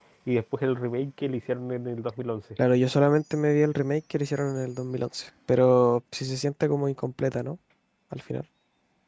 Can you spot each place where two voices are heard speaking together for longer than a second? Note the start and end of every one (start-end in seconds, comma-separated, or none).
none